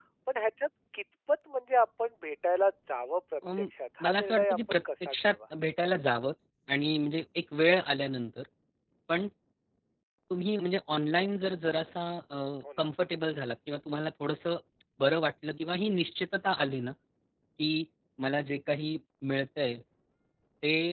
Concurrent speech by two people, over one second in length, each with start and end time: 4.0-5.4

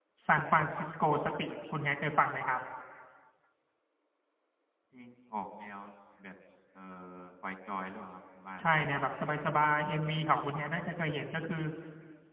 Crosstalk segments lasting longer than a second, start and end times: none

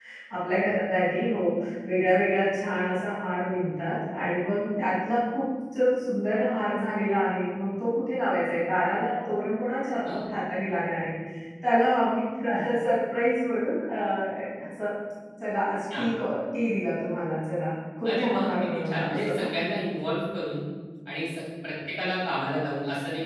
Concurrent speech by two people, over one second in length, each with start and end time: 18.1-19.4

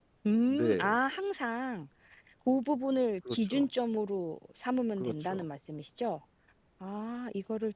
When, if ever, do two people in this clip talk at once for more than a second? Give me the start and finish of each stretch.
none

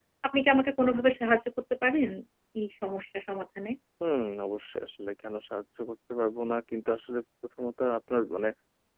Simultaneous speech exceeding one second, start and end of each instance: none

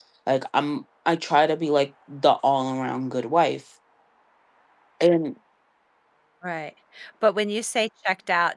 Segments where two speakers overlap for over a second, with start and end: none

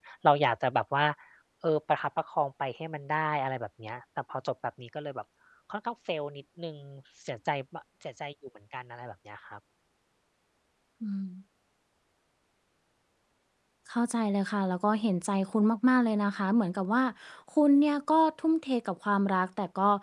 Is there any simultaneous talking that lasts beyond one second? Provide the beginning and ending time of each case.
none

